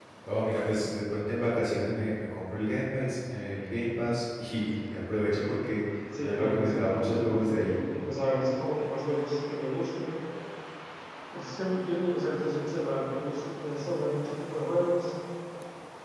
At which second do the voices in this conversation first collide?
6.2 s

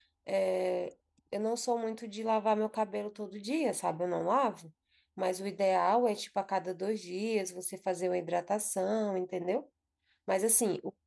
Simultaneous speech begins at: none

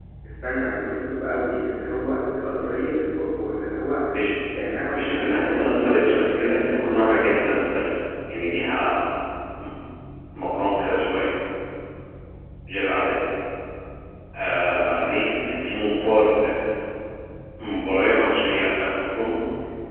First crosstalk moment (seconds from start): 4.9 s

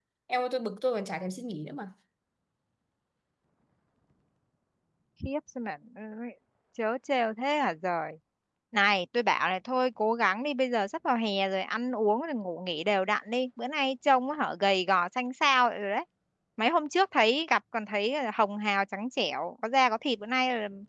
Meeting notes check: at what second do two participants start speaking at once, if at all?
none

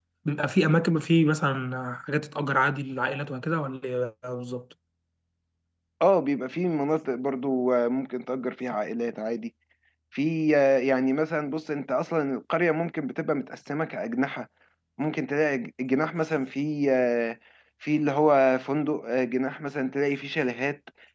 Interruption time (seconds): none

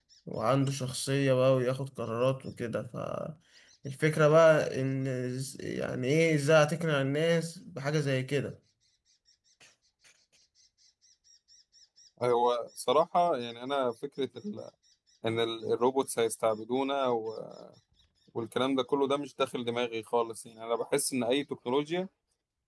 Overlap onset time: none

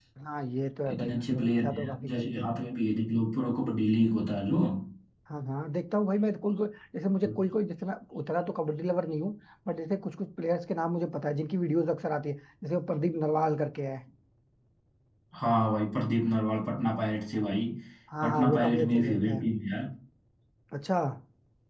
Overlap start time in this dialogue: 0.9 s

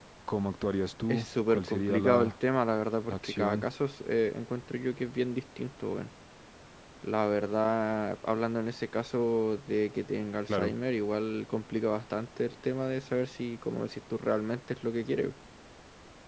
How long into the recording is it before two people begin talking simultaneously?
1.1 s

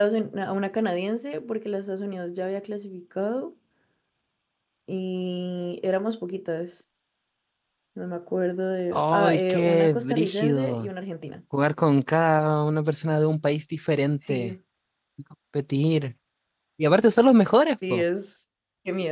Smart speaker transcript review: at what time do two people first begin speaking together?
8.9 s

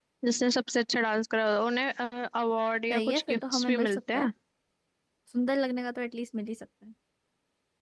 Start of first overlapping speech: 2.9 s

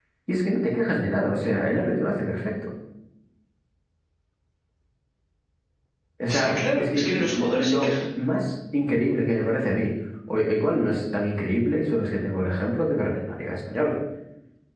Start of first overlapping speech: 6.3 s

